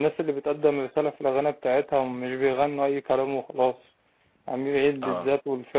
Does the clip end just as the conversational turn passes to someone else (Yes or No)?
No